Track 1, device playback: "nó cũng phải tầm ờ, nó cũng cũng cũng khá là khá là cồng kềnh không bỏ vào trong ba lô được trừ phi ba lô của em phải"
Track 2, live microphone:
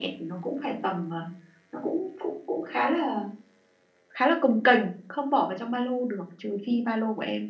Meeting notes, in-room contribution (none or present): none